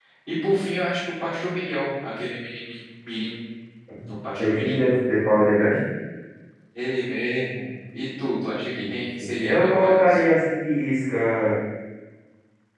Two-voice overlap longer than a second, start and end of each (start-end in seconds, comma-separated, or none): 8.8-10.2